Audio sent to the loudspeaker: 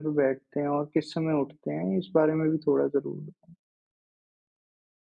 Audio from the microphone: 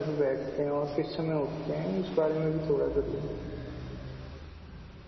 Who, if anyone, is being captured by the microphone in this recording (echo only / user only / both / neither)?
echo only